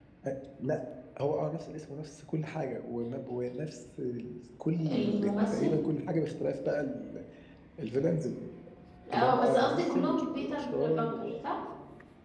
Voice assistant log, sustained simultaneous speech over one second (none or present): present